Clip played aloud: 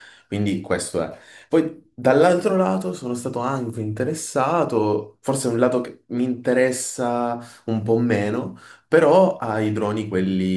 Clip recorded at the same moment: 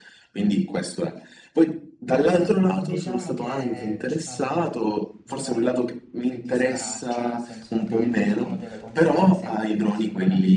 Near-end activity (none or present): present